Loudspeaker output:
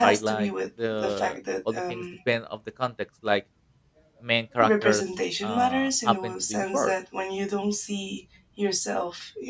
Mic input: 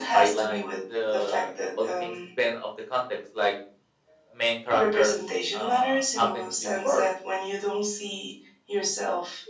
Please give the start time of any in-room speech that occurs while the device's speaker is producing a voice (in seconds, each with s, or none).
none